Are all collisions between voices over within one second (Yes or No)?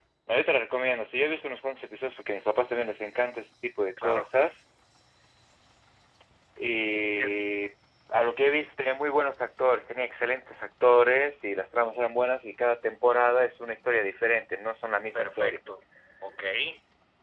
Yes